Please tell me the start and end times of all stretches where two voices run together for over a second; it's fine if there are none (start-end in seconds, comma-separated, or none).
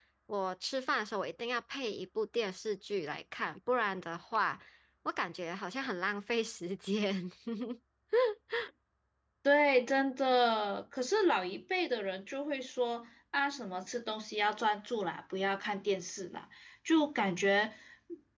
none